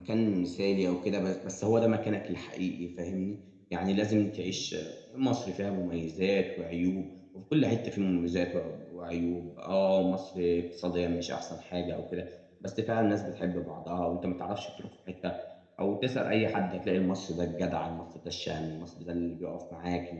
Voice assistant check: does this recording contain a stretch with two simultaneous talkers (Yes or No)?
No